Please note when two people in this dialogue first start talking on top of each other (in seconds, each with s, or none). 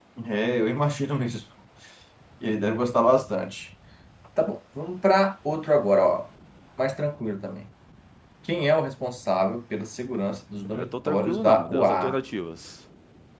10.7 s